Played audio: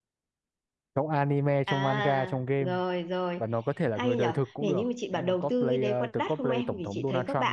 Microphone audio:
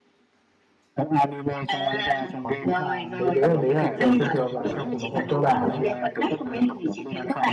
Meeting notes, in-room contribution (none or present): present